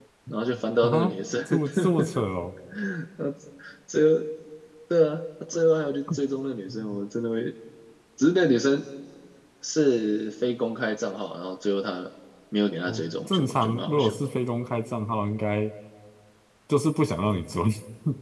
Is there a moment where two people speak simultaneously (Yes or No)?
Yes